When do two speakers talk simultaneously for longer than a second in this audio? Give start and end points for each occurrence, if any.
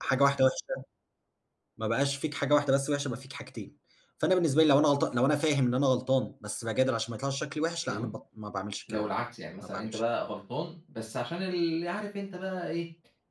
none

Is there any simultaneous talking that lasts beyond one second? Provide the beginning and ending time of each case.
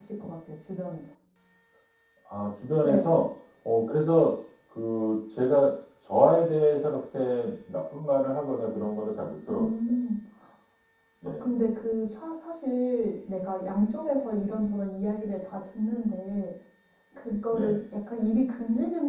none

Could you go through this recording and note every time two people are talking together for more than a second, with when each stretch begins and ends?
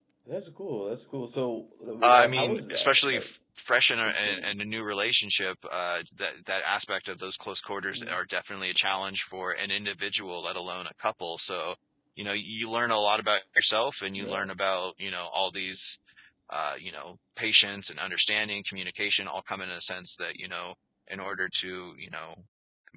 2.0-3.3

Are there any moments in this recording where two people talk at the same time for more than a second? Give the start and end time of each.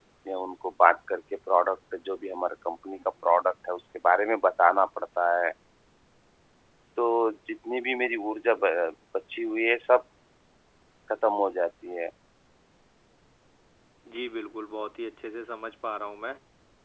none

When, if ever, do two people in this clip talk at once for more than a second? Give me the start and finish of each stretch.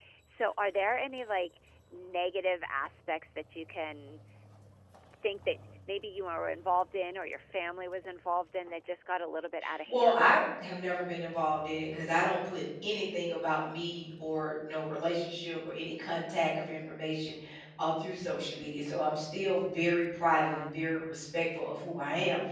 none

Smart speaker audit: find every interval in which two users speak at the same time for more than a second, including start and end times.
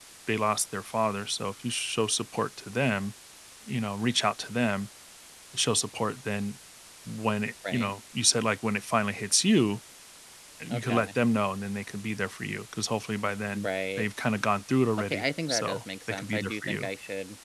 15.0-16.9

